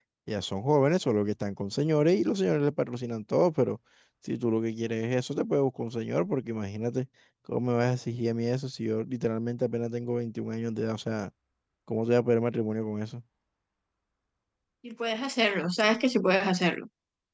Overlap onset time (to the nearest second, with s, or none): none